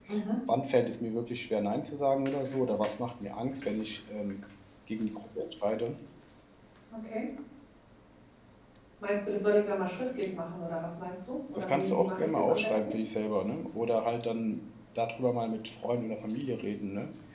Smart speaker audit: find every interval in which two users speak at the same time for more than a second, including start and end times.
11.6-12.9

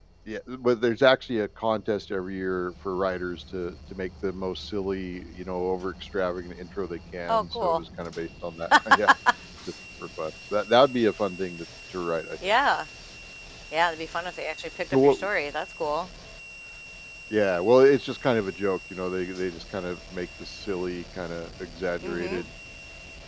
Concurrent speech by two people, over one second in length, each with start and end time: none

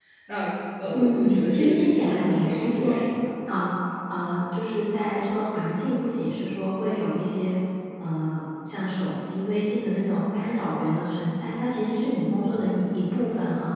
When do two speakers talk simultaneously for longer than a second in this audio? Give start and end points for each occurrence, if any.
0.9-2.9

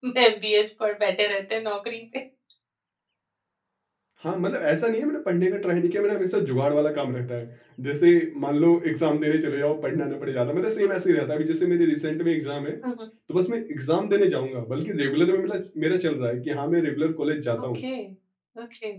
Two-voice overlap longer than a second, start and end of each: none

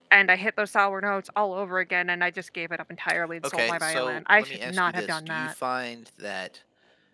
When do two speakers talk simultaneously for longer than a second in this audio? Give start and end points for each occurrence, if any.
3.5-5.5

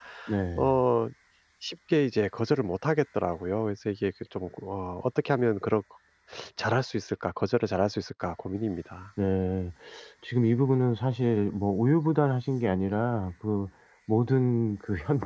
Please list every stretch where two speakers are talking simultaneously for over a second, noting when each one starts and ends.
none

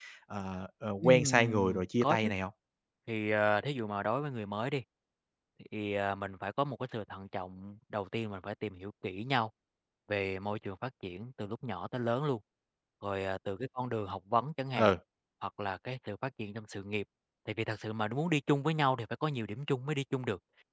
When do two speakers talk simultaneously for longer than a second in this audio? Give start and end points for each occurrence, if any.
1.0-2.3

